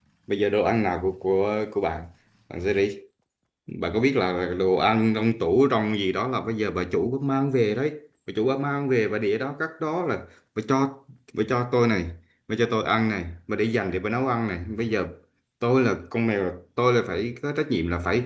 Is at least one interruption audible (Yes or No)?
No